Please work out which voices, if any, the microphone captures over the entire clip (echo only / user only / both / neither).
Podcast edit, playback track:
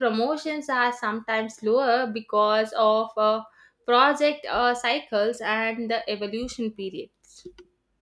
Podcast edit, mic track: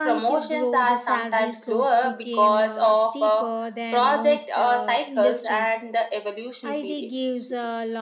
both